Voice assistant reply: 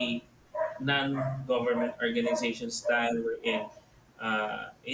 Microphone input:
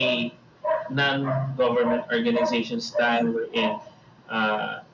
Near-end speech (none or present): none